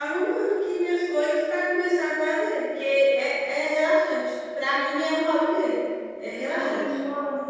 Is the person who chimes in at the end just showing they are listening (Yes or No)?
No